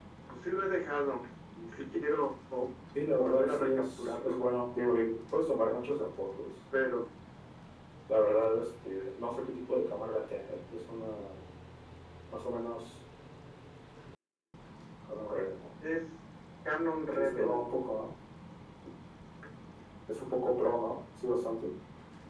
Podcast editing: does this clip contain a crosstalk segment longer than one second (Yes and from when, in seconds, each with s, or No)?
Yes, from 3.1 s